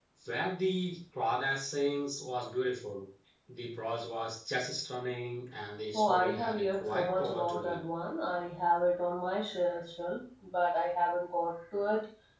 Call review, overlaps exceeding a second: present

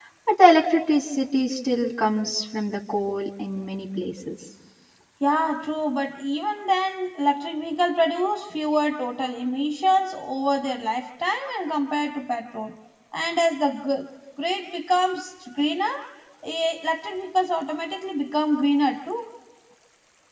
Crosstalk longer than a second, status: none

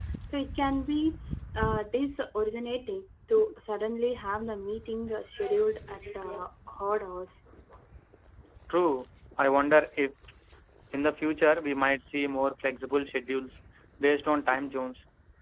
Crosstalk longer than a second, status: none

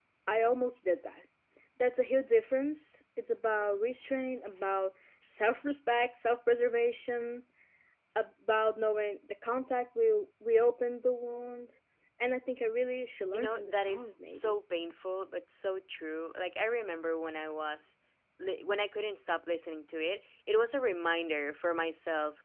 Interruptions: present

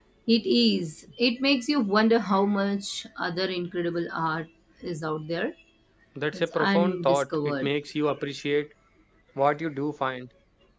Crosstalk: present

